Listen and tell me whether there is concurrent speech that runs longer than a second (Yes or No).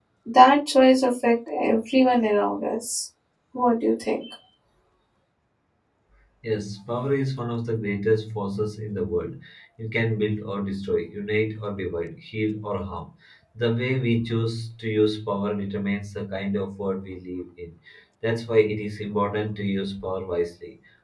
No